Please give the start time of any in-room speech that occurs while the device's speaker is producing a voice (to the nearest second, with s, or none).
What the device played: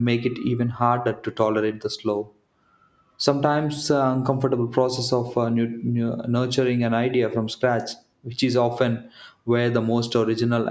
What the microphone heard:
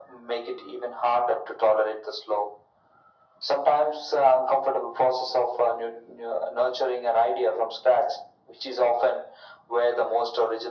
none